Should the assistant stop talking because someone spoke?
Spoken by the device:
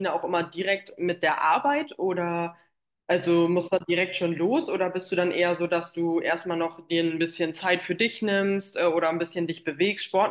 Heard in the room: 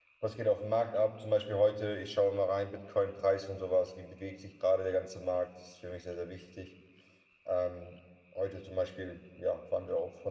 Yes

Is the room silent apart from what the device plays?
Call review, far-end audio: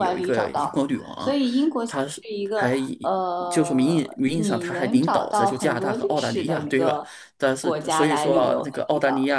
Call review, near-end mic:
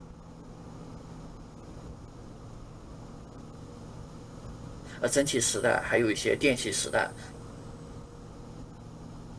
No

